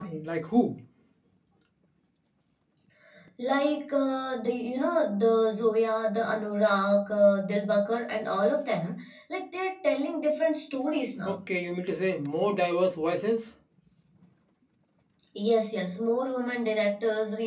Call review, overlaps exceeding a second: none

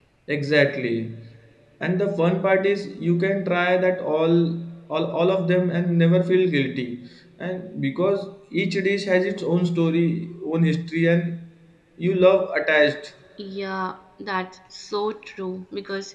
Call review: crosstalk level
none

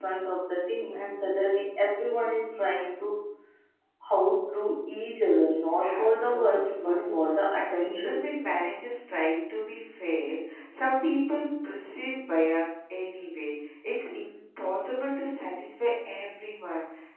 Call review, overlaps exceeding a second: present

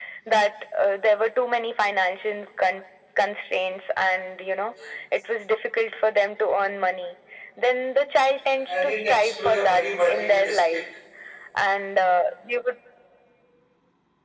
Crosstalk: present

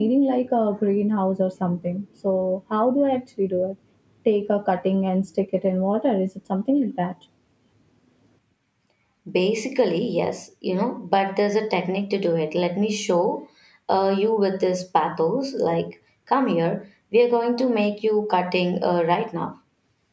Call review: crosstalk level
none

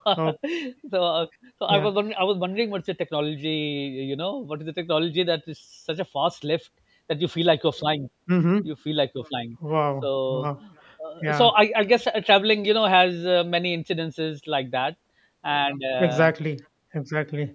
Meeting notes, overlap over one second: none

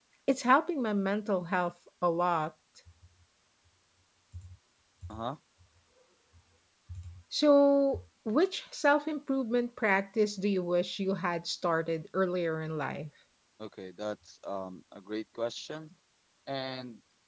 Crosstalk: none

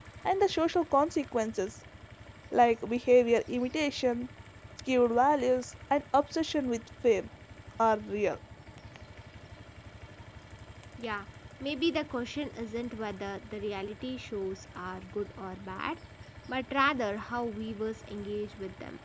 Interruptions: none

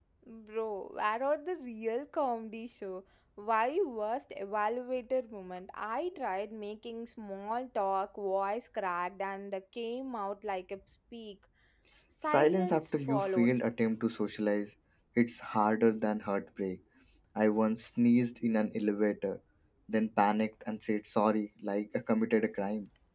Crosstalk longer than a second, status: present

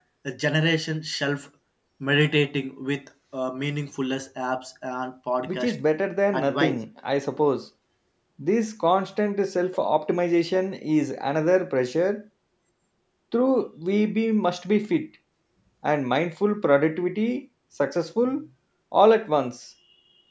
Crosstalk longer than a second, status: none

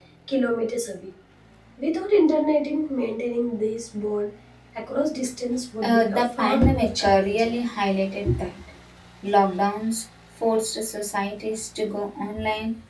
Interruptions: present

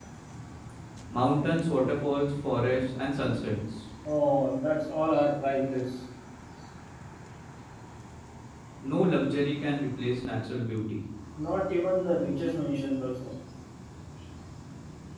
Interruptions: none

